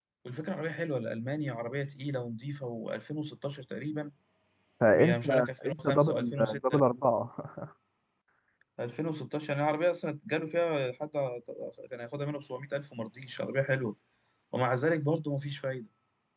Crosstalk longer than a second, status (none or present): present